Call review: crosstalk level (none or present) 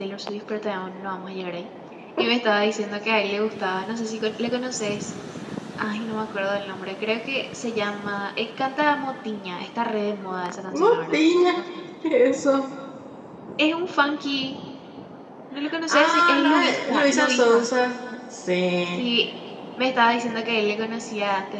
present